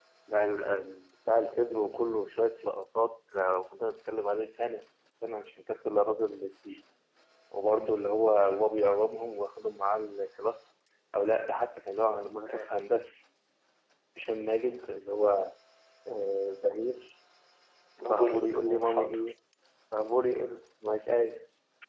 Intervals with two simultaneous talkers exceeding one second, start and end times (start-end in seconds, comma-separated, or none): 18.0-19.2